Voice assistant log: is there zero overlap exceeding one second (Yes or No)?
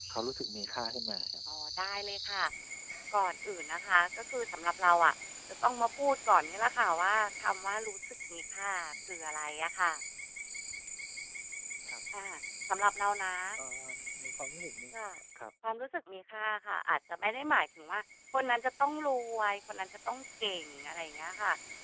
Yes